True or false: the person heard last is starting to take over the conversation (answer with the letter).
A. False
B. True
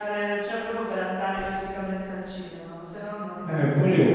B